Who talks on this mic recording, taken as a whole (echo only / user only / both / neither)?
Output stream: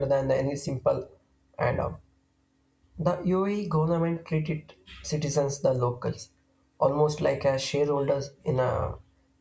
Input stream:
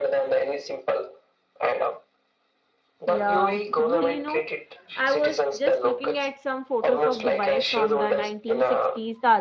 both